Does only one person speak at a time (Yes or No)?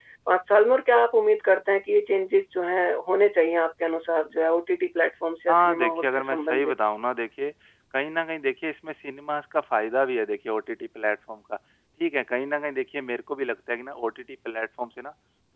No